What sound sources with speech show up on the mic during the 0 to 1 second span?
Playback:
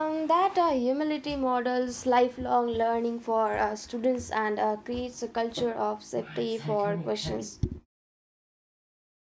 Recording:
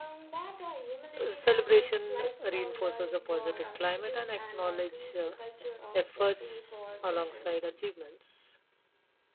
echo only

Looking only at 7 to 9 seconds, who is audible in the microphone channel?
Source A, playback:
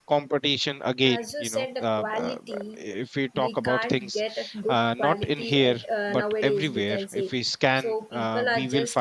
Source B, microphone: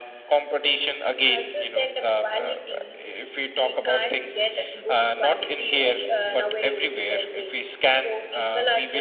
echo only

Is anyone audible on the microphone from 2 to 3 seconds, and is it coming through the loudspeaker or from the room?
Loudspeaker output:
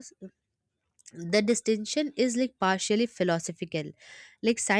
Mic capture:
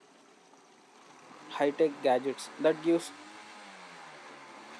user only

